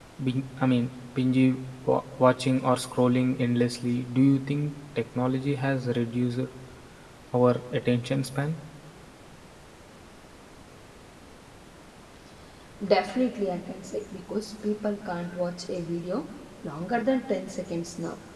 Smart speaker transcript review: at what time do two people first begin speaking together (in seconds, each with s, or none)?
none